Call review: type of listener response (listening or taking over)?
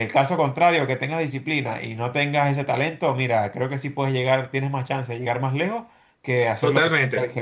taking over